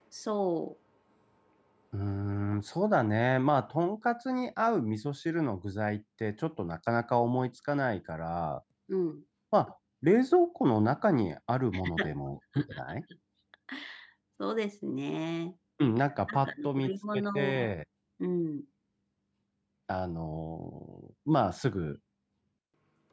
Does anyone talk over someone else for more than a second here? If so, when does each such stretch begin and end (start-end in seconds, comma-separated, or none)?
16.3-17.7